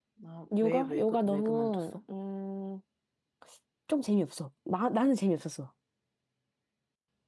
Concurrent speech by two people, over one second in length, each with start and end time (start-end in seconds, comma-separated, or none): 0.6-1.9